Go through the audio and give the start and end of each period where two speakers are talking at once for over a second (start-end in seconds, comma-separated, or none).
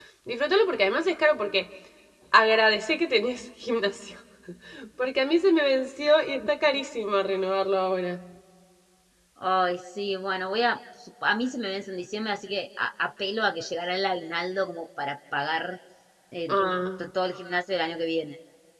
none